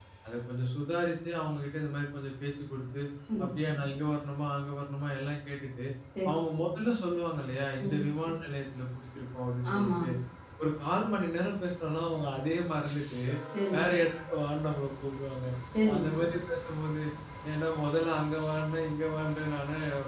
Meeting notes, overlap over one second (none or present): none